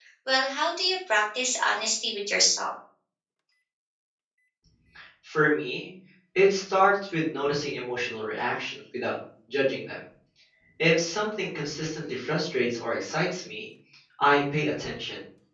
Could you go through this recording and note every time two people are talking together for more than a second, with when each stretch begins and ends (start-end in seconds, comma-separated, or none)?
none